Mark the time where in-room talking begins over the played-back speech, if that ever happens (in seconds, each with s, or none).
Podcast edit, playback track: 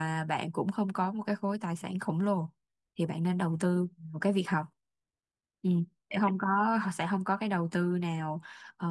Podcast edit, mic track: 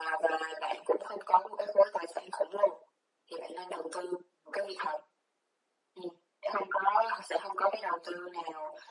none